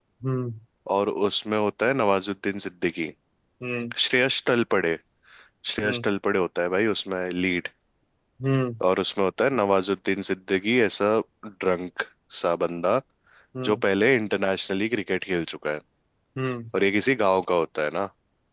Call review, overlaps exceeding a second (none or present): none